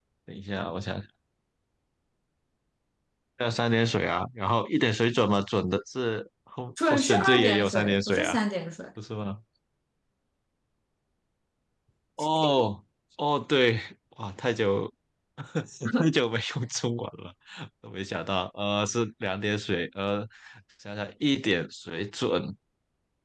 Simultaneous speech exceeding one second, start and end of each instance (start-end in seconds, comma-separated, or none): 6.8-8.3